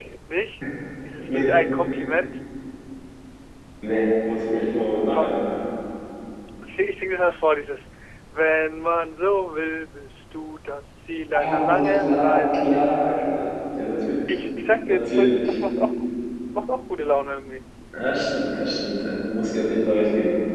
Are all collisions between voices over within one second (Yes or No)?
No